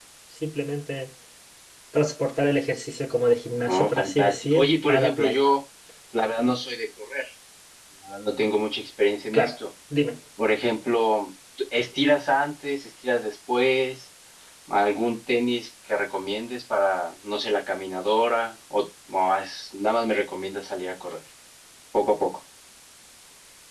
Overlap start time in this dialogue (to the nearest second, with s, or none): 4 s